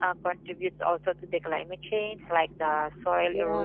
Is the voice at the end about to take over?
No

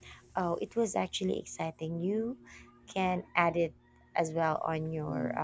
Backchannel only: No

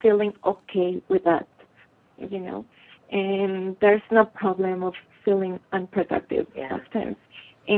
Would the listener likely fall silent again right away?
Yes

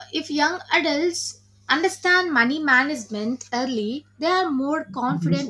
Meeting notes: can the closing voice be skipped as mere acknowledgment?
Yes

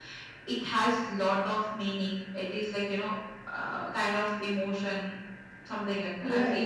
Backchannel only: No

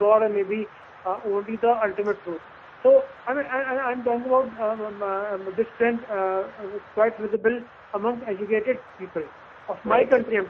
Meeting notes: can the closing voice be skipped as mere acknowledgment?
Yes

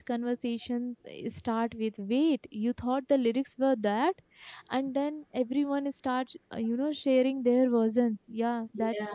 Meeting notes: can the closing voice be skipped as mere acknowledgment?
Yes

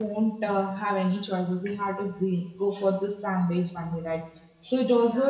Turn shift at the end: No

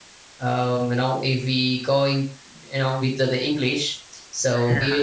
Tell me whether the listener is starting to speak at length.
No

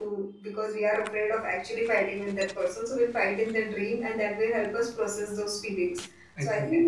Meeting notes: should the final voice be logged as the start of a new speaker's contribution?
No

